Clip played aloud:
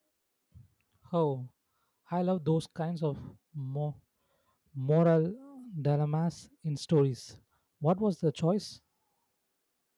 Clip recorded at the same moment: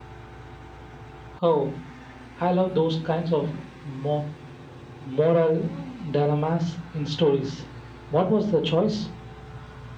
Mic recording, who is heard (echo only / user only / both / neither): echo only